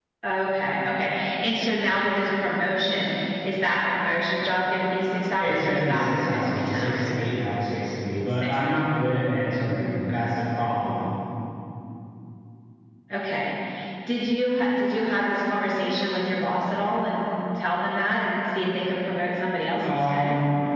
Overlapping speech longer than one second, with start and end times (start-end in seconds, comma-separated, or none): 5.4-7.1